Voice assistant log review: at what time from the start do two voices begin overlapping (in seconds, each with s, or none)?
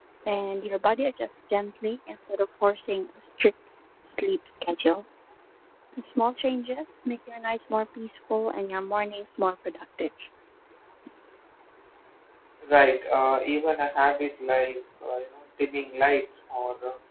none